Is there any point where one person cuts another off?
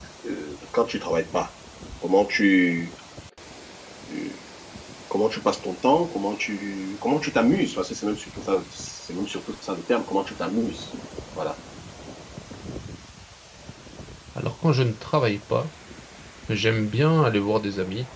No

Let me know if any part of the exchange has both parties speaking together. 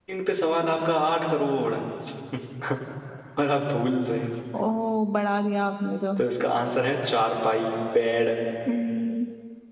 No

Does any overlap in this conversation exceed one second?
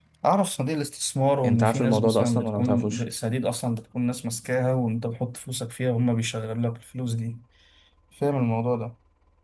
Yes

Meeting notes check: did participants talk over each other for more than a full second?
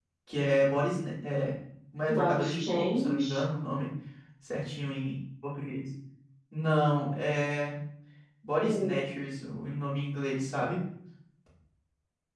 Yes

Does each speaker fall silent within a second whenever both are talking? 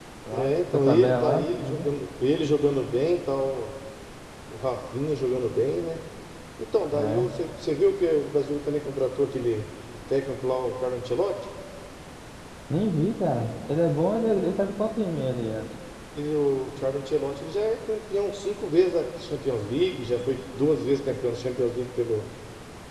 No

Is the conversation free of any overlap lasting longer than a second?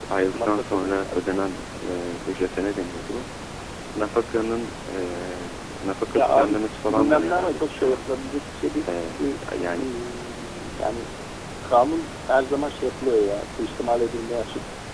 No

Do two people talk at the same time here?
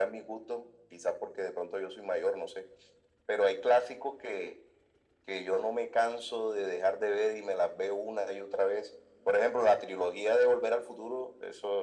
No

